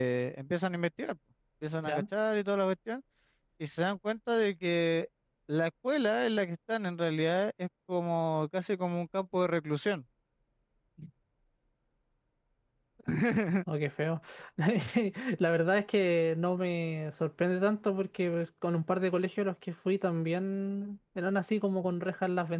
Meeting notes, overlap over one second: none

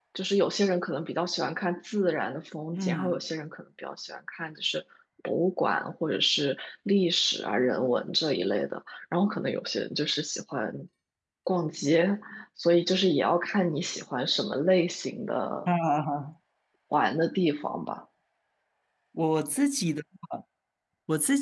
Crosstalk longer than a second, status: none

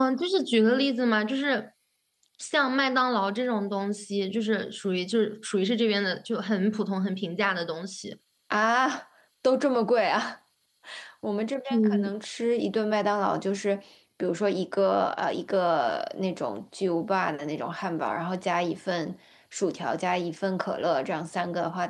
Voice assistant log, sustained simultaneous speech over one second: none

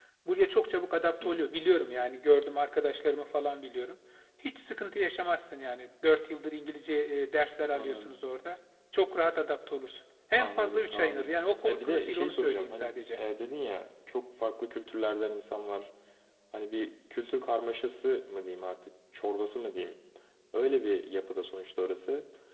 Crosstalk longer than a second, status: present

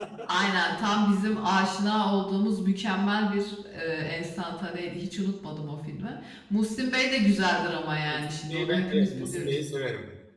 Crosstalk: present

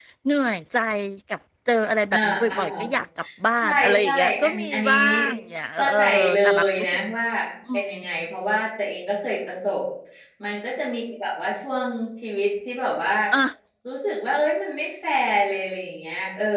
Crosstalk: present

